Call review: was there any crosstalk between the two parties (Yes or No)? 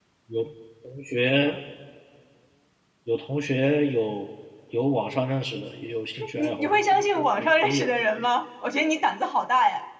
Yes